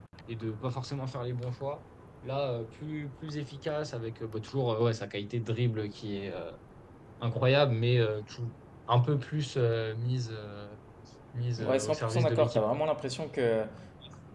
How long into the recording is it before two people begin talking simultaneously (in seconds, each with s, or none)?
11.6 s